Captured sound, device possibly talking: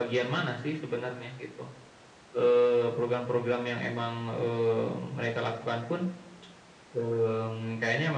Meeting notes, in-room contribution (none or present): none